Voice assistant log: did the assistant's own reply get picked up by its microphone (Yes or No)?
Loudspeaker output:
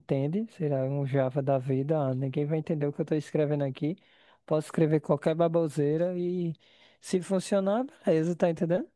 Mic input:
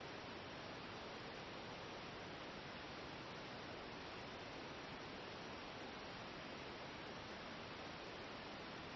No